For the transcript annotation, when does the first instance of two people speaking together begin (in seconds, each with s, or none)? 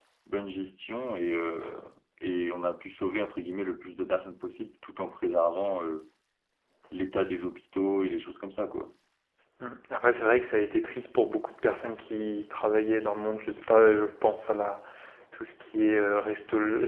none